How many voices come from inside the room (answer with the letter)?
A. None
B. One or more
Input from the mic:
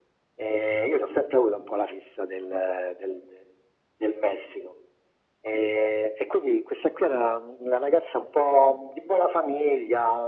A